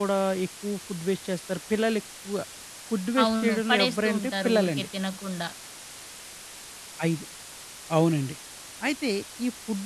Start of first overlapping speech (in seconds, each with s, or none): 3.2 s